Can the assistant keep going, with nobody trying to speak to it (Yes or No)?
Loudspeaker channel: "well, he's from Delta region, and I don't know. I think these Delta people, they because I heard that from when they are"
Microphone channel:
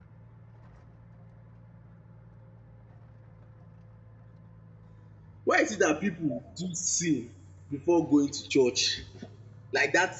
No